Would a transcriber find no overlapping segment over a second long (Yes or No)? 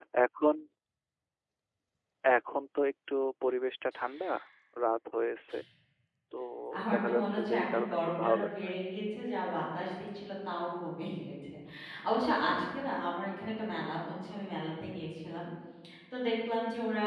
No